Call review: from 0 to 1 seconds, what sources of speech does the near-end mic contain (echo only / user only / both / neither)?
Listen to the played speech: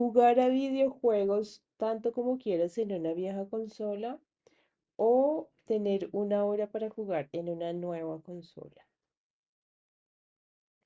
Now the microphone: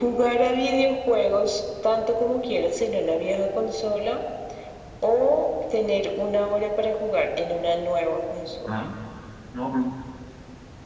echo only